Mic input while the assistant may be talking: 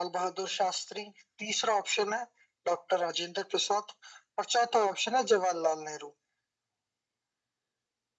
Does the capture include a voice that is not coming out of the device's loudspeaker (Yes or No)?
No